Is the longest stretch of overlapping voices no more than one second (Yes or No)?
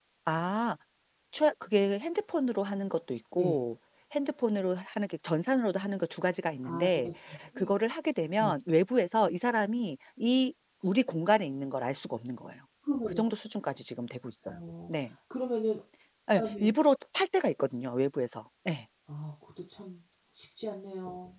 Yes